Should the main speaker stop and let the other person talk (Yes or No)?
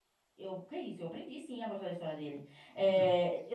No